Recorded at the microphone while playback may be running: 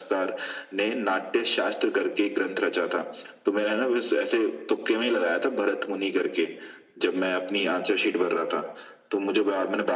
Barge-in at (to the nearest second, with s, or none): none